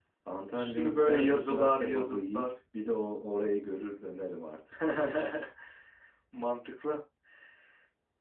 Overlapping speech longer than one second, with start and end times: 0.5-2.5

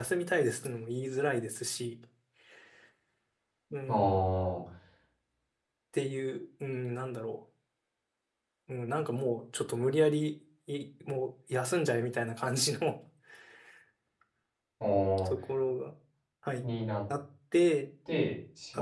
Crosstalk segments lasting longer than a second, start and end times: none

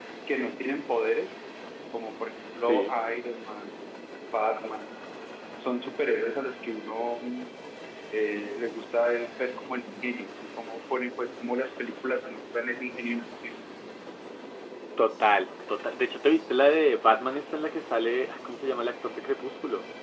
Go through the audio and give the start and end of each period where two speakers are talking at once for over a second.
none

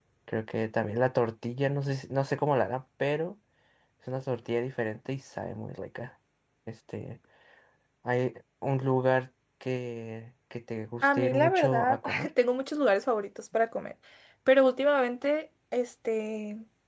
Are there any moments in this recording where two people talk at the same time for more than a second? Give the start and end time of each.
11.0-12.3

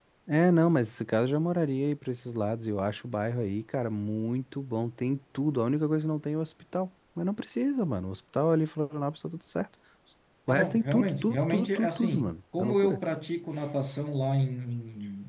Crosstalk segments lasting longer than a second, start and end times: 10.5-13.0

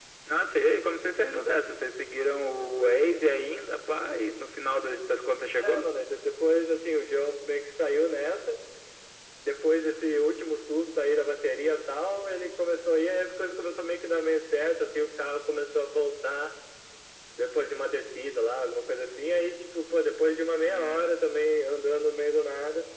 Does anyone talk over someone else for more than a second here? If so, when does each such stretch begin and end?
none

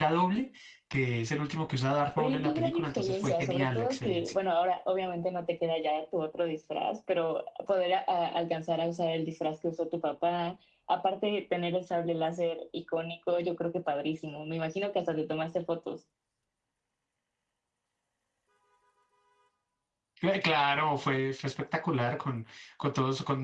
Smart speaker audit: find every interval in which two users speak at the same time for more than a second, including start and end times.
2.2-4.3

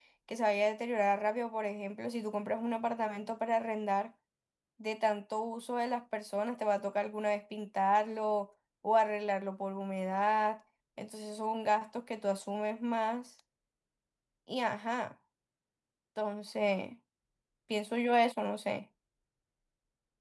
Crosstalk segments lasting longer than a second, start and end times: none

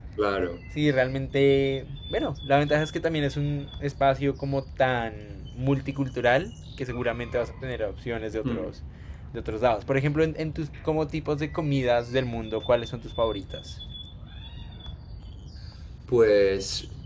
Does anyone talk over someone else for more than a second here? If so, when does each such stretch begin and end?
none

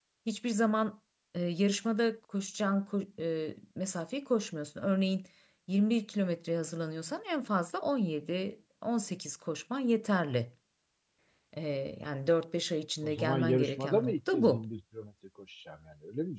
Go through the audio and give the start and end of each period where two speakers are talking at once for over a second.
13.0-14.6

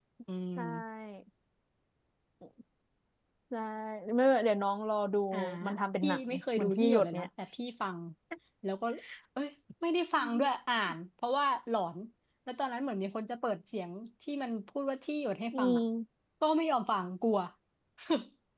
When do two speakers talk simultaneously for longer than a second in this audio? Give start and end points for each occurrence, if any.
6.0-7.3

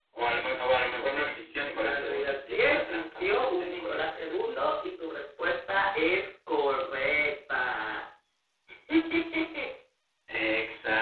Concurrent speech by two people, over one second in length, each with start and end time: 1.7-4.4

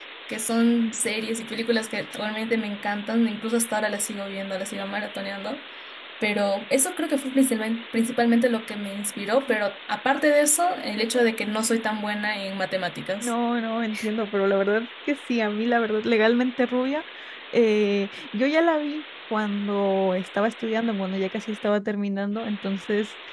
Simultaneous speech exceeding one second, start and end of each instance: none

